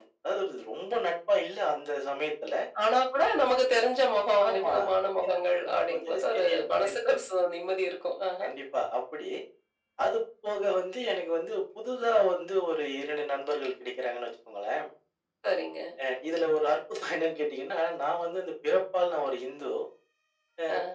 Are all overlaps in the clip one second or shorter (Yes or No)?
No